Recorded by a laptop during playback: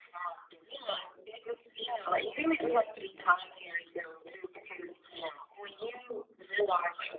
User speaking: No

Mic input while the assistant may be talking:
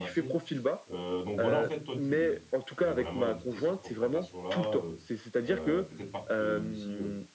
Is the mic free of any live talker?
No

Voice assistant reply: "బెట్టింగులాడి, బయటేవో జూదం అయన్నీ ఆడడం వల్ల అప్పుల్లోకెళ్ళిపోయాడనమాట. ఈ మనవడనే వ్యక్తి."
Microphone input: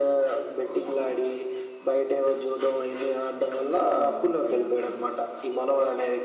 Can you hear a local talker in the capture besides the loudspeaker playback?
Yes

